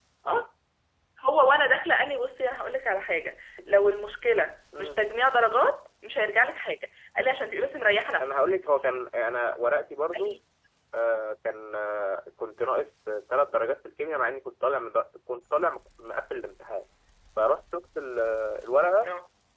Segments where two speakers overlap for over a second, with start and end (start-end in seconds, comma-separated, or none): none